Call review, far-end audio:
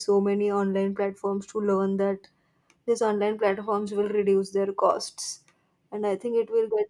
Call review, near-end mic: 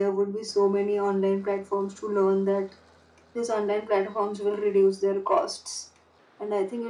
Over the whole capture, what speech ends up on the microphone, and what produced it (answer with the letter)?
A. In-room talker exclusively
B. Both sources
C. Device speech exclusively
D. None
C